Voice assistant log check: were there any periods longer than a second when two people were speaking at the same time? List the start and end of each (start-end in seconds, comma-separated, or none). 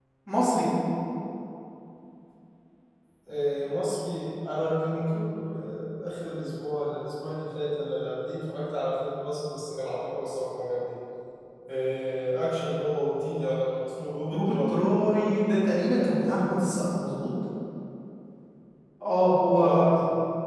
none